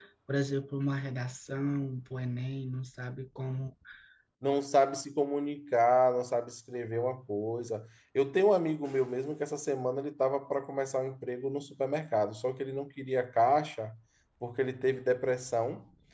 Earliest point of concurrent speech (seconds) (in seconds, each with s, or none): none